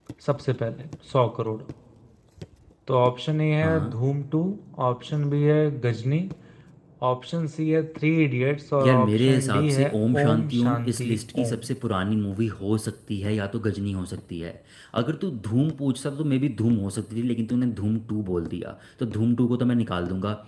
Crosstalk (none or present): present